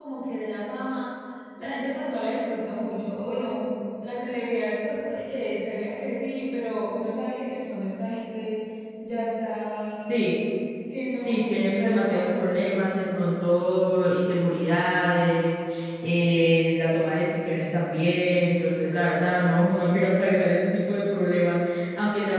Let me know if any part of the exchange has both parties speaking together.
Yes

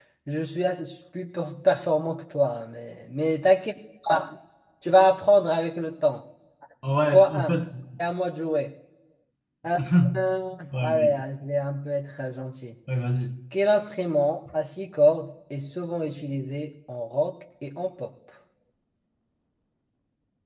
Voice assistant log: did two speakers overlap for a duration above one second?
No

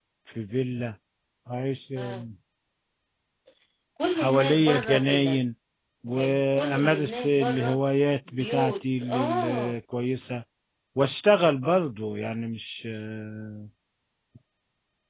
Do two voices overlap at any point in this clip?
Yes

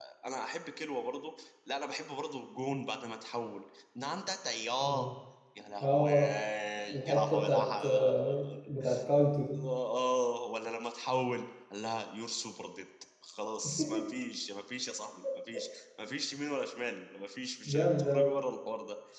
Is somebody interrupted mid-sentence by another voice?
Yes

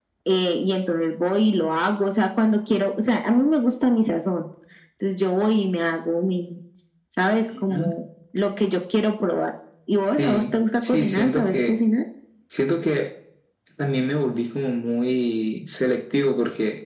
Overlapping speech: Yes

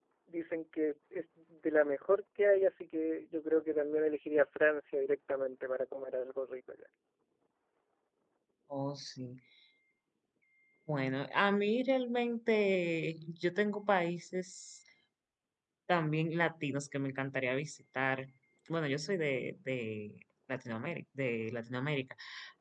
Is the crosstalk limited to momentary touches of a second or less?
Yes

